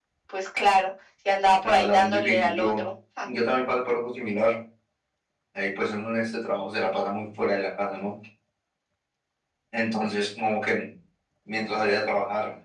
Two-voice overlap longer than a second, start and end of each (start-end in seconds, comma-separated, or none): 1.6-2.9